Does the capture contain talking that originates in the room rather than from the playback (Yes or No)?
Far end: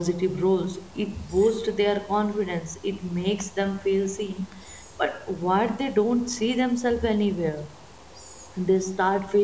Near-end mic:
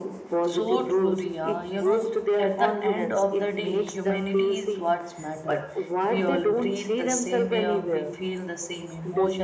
Yes